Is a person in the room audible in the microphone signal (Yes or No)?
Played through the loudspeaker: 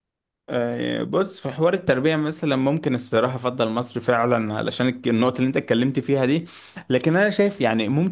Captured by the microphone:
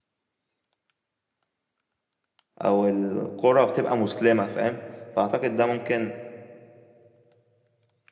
Yes